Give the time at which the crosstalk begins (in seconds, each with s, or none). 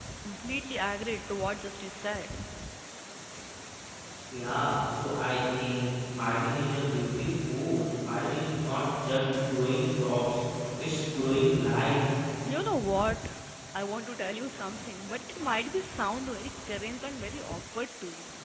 none